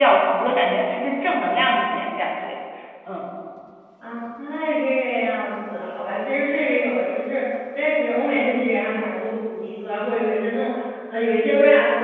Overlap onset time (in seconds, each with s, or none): none